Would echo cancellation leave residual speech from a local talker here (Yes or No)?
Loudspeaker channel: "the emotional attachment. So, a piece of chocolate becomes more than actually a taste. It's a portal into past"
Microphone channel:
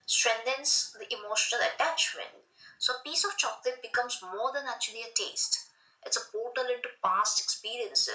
No